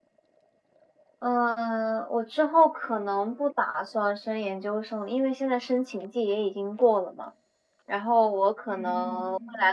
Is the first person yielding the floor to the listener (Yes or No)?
No